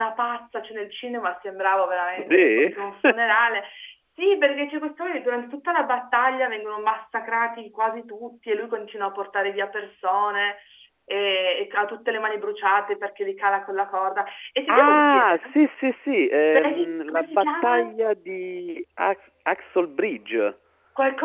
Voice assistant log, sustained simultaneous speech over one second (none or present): present